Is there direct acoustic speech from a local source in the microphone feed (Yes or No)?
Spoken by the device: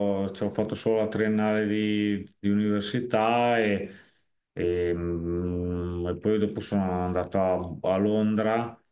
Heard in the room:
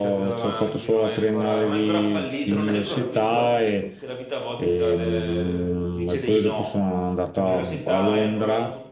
Yes